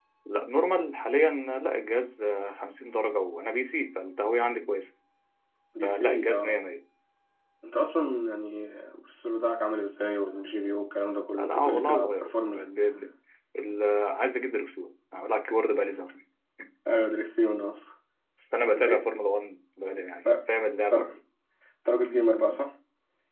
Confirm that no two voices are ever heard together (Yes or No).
No